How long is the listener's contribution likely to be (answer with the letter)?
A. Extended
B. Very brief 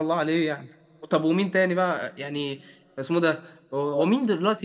B